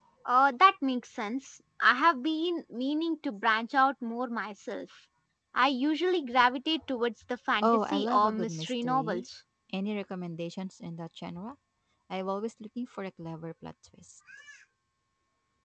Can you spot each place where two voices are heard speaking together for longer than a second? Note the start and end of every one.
7.6-9.2

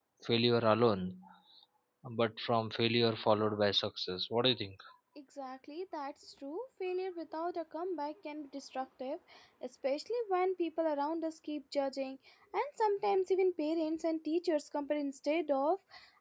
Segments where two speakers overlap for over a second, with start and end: none

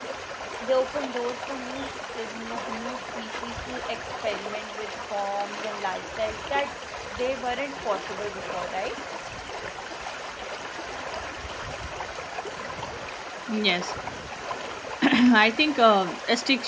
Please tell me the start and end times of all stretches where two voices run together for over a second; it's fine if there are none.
none

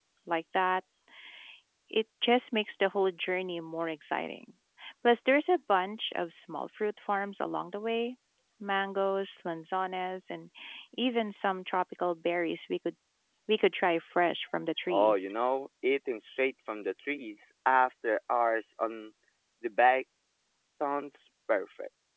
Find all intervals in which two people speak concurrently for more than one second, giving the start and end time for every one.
none

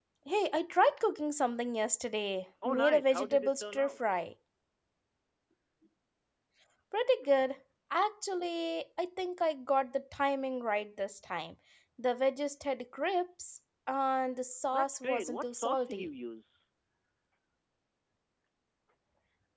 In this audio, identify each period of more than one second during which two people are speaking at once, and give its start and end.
2.6-4.0, 14.7-16.1

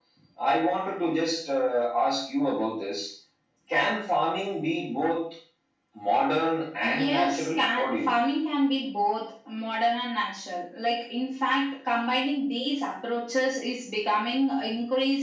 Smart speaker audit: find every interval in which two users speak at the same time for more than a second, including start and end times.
6.8-8.2

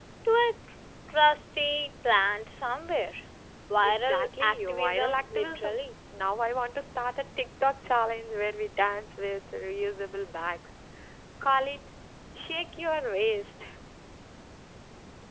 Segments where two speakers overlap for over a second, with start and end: 3.8-5.8

